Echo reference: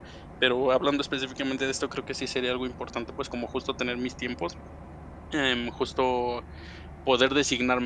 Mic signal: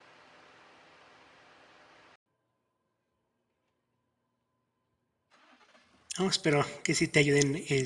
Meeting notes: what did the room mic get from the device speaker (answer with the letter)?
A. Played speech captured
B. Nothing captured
B